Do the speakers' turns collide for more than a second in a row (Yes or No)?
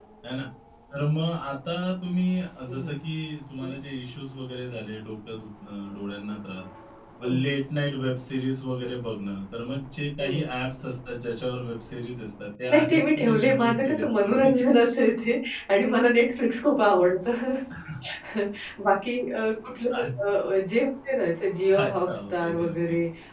Yes